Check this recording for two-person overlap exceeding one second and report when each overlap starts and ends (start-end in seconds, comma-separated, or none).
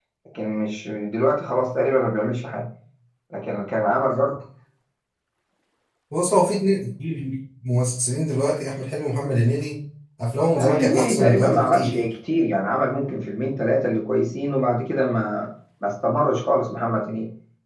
10.6-12.1